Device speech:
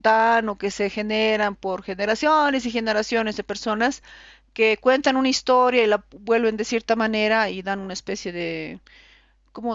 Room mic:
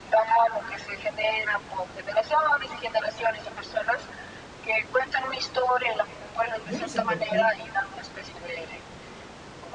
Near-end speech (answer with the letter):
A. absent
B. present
B